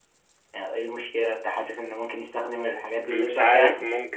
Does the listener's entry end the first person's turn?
Yes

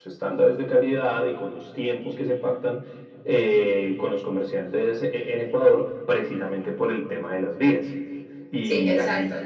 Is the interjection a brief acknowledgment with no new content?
No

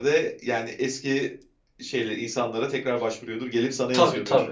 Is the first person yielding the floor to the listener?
Yes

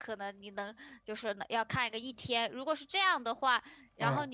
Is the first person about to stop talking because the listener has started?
No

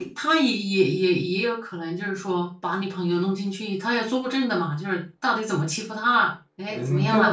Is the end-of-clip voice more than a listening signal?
Yes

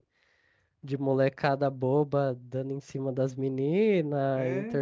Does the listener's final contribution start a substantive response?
No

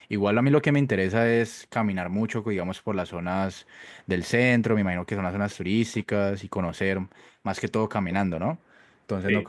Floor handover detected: No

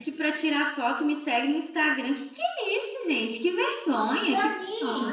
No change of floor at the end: No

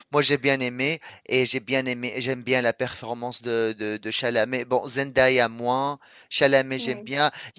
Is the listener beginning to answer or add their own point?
No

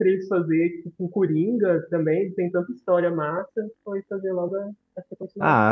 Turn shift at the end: Yes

